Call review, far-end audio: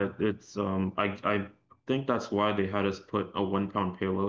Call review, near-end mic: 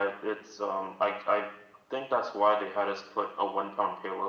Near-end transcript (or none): none